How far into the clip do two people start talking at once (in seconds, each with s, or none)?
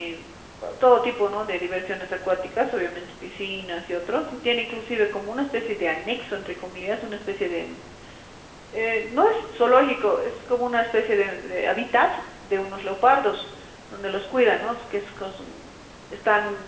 none